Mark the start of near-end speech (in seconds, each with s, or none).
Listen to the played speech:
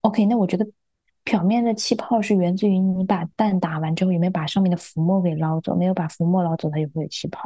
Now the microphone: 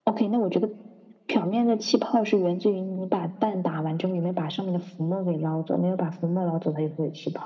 none